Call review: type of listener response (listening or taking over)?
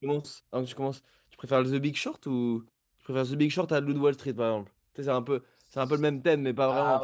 taking over